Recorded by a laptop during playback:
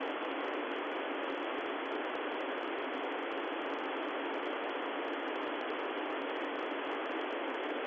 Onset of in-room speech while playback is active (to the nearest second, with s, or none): none